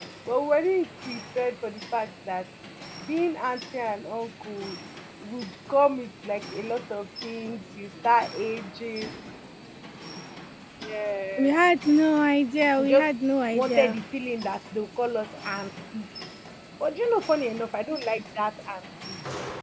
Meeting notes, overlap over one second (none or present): none